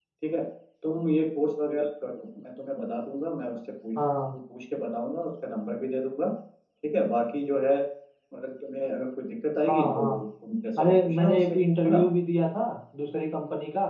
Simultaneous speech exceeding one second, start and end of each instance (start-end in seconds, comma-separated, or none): 10.8-12.0